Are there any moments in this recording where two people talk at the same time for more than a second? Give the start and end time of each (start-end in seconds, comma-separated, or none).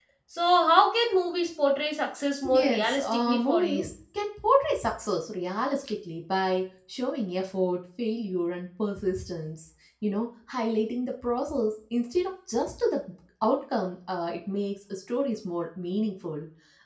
2.5-3.9